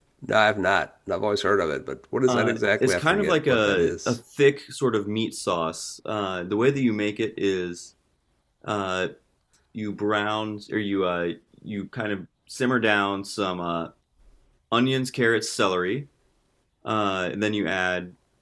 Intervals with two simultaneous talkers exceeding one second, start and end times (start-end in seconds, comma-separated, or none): 2.3-4.2